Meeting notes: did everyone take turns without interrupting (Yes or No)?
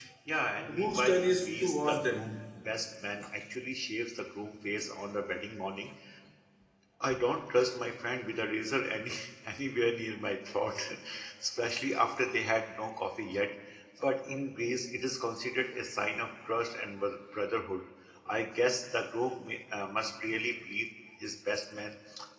No